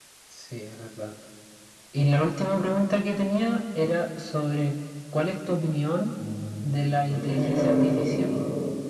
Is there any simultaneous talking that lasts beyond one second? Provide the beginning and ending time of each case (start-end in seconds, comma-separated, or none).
7.1-8.3